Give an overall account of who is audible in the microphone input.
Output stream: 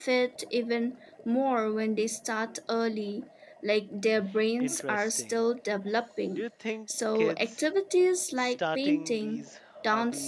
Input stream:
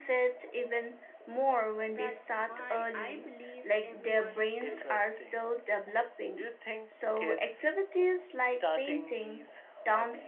both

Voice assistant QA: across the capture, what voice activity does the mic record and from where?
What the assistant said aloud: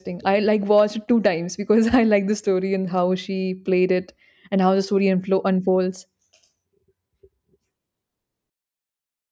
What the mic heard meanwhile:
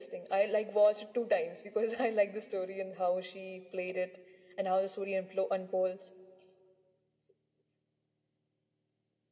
echo only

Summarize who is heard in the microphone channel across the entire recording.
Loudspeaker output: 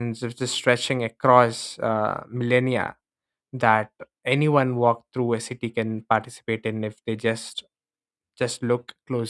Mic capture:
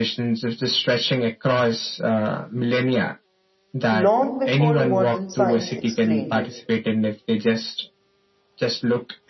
both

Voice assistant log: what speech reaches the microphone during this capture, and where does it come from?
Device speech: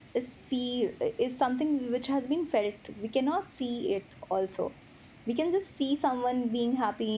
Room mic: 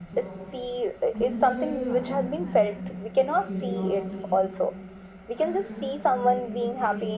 both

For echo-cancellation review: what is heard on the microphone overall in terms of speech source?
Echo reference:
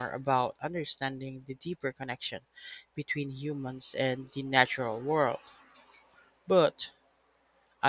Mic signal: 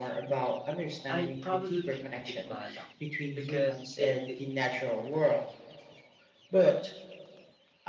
both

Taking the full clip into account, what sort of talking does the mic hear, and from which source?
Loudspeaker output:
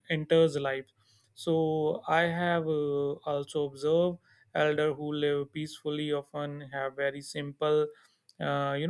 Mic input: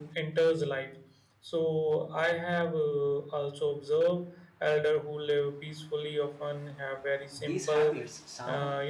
both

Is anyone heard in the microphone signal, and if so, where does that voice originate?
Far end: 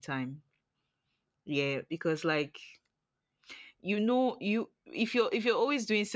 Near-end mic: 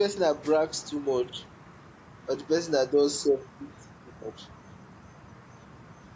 user only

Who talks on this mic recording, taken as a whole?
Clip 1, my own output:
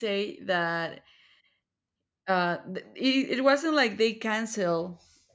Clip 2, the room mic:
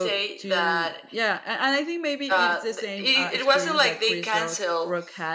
both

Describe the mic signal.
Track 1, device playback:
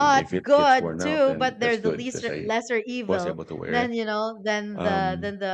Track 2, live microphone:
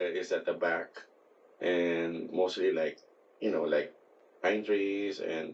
user only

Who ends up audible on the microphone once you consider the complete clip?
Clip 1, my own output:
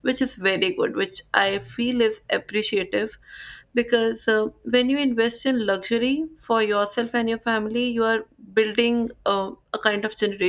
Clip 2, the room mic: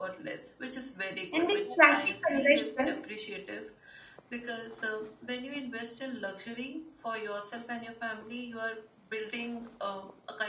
both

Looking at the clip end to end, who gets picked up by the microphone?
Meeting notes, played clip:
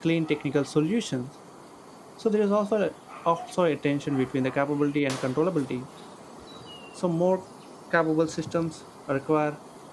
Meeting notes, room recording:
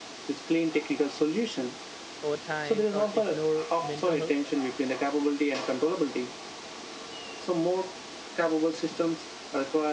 both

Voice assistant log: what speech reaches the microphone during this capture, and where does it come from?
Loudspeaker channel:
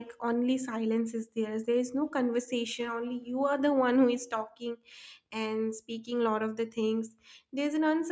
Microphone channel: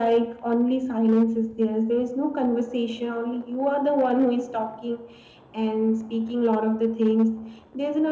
echo only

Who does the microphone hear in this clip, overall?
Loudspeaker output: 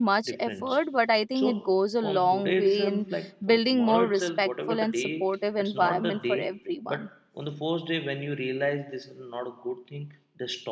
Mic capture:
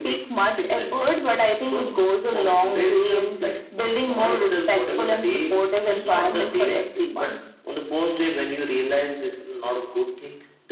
echo only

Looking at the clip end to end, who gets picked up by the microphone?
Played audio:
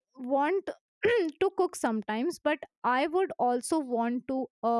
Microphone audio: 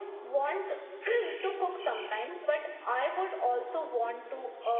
echo only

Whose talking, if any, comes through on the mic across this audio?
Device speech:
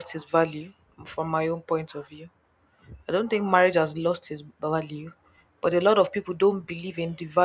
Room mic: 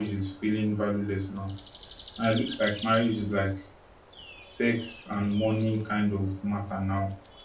user only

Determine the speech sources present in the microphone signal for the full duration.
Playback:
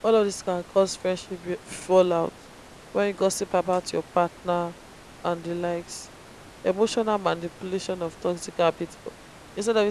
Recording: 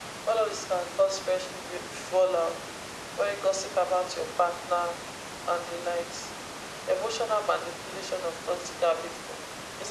echo only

